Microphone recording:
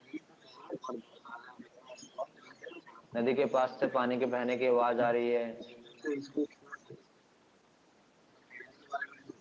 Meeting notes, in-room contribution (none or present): present